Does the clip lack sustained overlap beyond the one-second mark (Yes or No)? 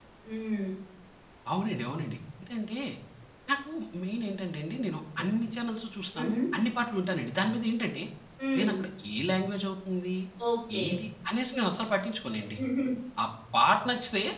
Yes